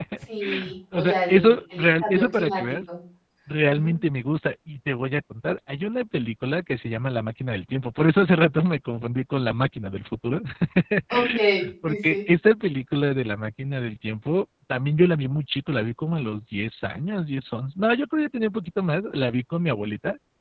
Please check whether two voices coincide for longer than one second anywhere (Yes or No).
Yes